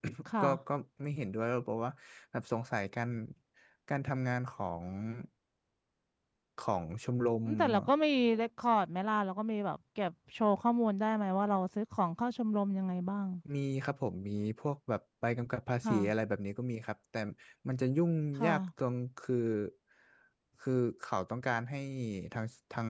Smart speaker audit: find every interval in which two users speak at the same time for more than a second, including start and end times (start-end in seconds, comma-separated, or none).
none